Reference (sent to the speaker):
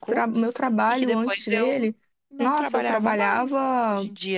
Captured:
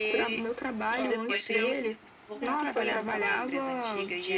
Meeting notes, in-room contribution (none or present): present